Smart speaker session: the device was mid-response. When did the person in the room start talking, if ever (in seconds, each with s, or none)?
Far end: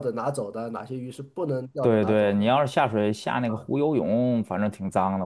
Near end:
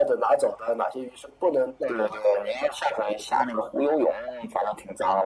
none